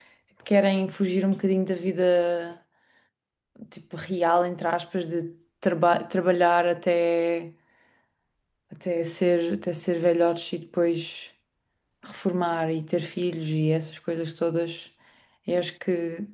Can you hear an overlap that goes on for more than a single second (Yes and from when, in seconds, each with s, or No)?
No